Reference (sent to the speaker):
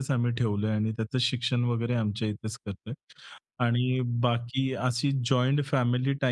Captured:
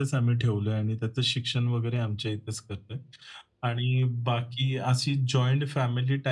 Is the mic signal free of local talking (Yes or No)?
Yes